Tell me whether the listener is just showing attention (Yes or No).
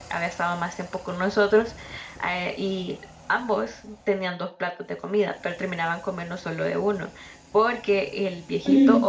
Yes